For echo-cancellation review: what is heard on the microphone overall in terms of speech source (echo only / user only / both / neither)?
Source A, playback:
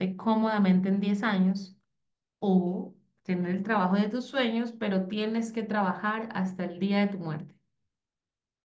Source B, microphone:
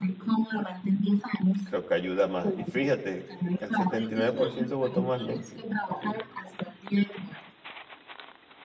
both